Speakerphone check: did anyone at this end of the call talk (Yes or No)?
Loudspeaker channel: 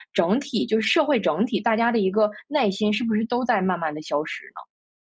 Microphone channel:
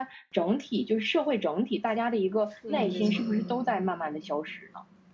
Yes